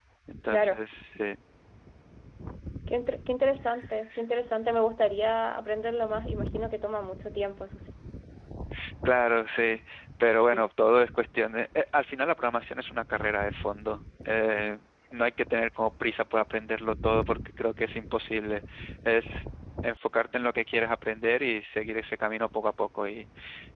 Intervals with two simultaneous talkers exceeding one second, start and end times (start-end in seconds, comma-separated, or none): none